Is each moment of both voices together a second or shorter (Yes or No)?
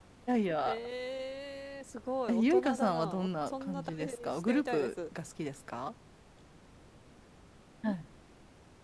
No